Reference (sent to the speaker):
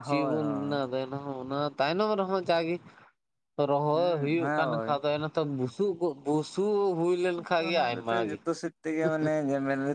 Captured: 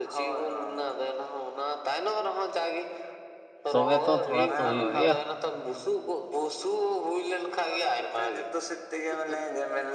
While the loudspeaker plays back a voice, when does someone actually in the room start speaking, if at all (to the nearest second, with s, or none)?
4 s